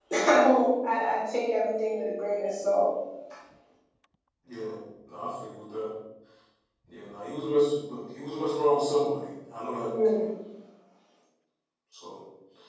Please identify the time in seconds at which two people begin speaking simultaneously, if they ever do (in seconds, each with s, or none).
none